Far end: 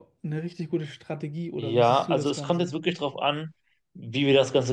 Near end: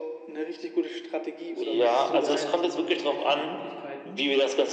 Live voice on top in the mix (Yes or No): No